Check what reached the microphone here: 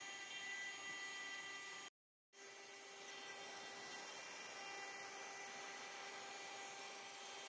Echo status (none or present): none